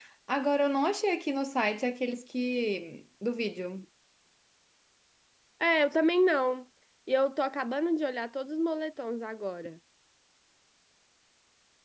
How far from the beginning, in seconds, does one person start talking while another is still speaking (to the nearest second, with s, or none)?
none